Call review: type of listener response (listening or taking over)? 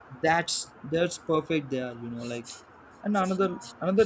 listening